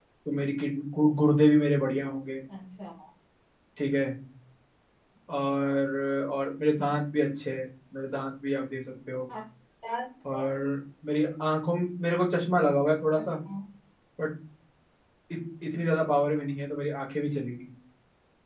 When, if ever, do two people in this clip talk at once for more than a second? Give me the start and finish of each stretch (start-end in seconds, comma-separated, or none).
none